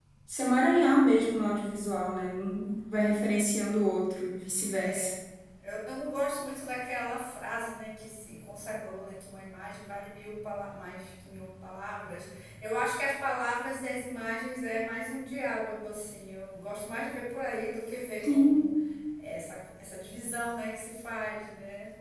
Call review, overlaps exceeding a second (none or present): none